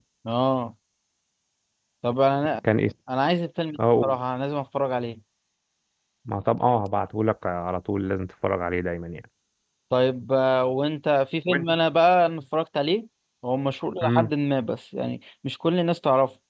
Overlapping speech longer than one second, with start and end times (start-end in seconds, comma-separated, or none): none